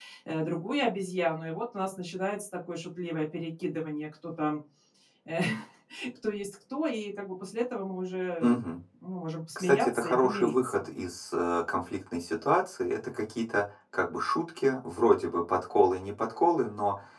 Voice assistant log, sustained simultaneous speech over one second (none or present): present